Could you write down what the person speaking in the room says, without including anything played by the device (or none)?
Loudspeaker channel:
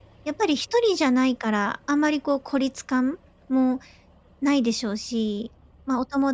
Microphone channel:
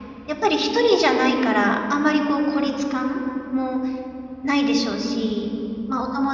none